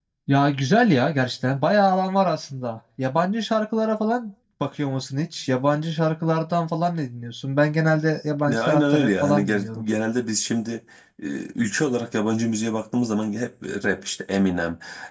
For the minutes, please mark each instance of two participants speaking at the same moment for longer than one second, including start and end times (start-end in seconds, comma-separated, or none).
8.5-9.8